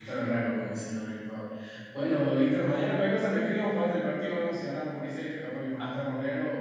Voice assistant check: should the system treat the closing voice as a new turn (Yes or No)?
No